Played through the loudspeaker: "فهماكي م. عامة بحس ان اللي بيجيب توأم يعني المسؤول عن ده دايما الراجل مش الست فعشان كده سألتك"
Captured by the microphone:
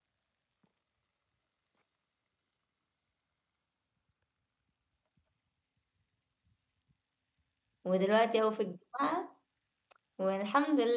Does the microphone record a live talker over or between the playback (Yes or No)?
Yes